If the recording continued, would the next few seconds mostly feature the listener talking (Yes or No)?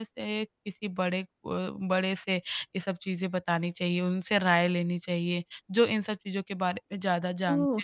Yes